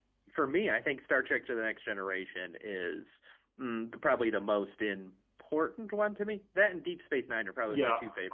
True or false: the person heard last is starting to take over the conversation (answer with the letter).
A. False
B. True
B